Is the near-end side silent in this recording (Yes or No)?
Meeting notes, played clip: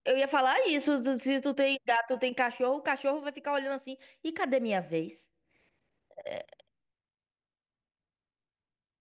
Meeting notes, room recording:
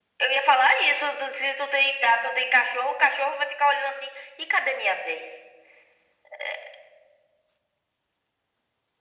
Yes